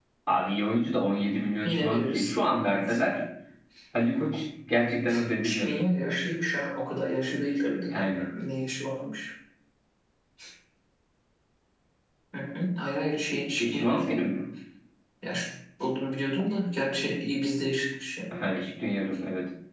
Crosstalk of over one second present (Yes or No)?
Yes